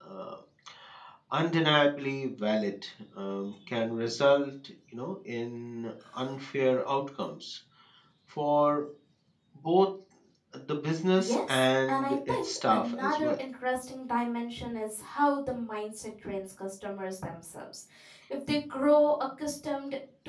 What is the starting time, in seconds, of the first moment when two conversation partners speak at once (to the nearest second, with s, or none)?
11 s